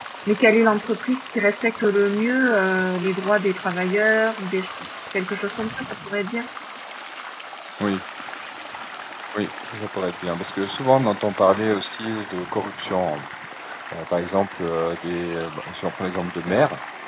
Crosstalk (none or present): none